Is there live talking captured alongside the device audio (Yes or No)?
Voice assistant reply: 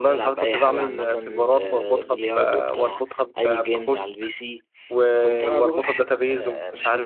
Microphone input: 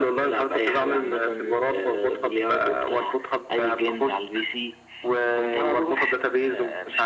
No